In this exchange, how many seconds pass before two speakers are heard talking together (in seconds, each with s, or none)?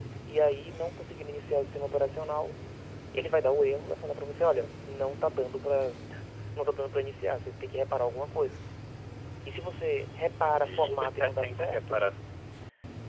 10.3 s